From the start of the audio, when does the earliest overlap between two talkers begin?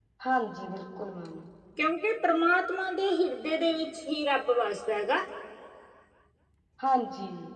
none

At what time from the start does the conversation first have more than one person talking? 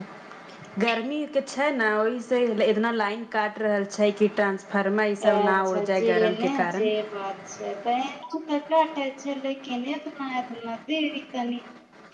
5.2 s

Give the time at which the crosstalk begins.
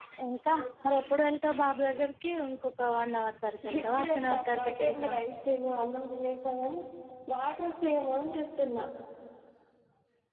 3.6 s

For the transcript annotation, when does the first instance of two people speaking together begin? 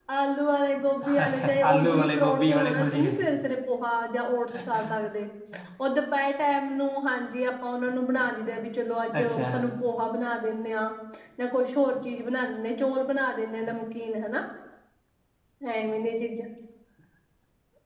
1.2 s

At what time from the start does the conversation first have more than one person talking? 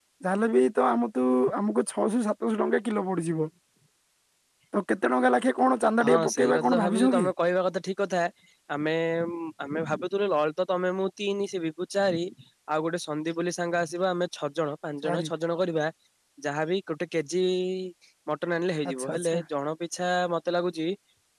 6.0 s

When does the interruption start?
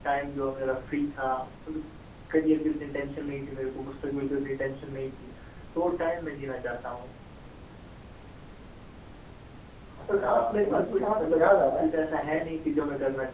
10.2 s

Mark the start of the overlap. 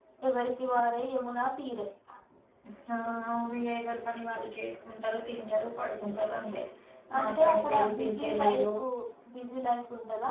7.2 s

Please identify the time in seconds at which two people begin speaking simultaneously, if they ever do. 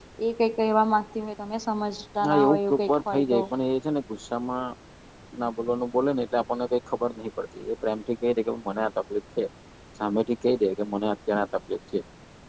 2.2 s

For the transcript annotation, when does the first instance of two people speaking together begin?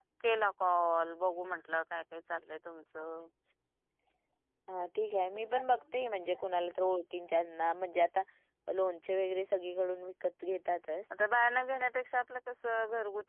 none

